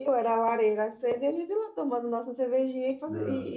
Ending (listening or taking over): listening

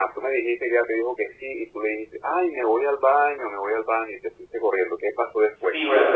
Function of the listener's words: taking over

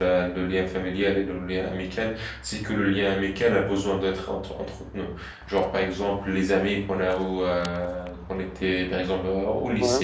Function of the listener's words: listening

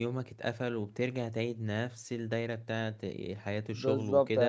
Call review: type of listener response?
taking over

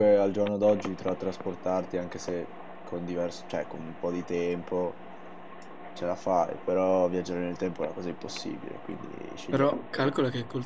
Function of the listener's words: taking over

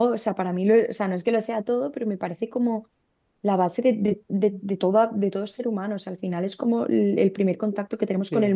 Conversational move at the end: taking over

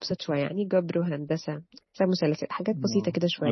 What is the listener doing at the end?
taking over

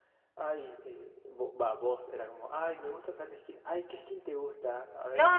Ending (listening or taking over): taking over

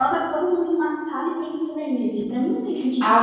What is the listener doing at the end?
taking over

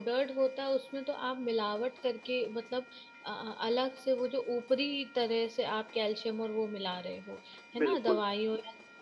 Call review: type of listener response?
listening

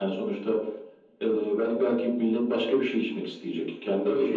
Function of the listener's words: taking over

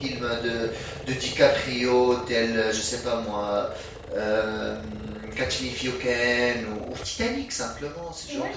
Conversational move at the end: taking over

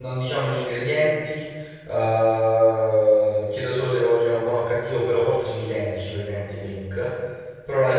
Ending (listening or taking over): listening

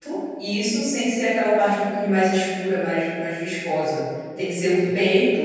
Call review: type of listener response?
listening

